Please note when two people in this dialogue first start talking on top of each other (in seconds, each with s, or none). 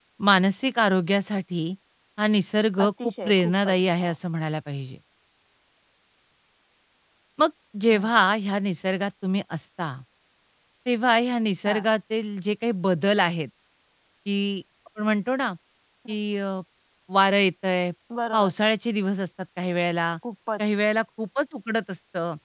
2.9 s